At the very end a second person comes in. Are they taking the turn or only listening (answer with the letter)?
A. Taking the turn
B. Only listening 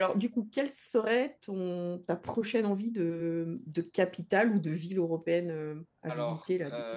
A